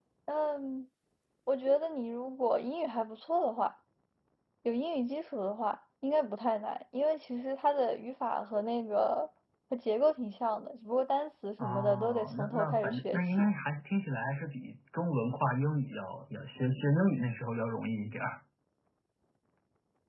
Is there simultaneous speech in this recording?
Yes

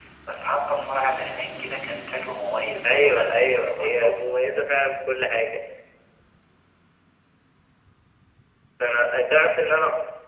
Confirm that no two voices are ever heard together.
No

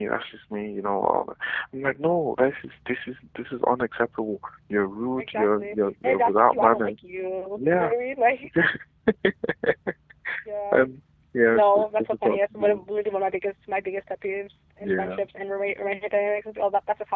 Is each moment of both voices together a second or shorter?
No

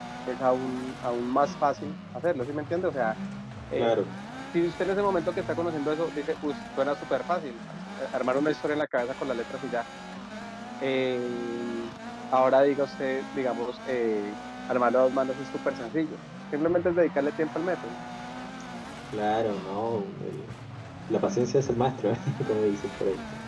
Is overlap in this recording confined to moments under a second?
Yes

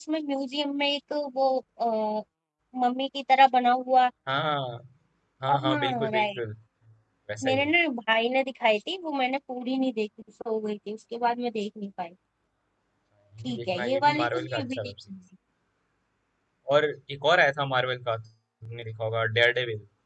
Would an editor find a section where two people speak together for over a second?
Yes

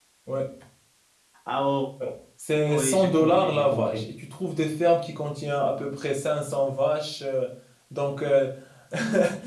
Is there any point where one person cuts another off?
Yes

